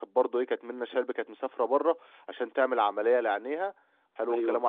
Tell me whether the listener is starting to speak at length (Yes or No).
No